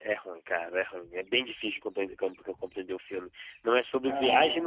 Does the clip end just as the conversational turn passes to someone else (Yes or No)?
No